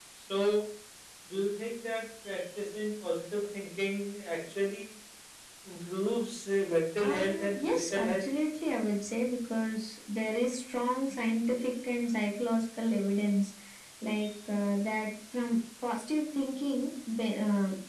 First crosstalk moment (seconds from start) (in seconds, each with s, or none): 7.0 s